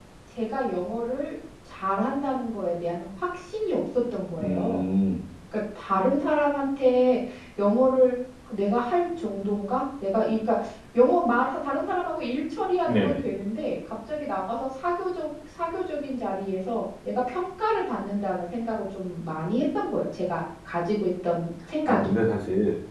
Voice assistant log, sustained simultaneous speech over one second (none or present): none